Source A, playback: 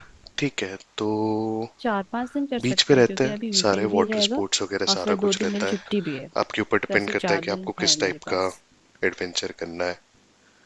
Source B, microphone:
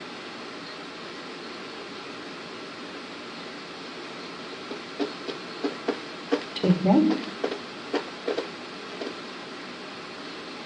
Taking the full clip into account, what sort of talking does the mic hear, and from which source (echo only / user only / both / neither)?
user only